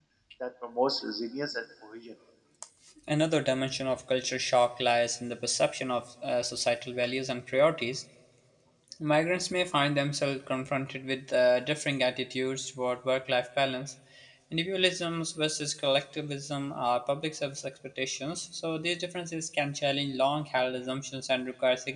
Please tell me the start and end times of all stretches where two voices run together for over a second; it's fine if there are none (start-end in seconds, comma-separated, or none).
none